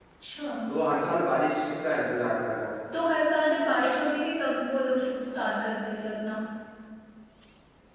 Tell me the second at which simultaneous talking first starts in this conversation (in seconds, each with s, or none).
none